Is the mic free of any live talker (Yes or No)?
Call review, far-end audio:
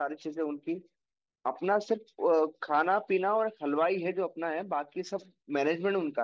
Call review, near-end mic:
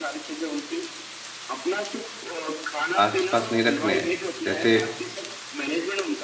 No